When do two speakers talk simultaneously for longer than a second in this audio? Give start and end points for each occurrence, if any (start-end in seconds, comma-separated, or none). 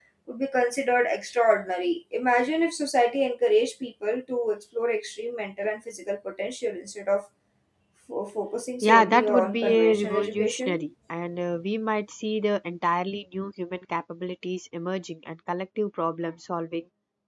8.8-10.8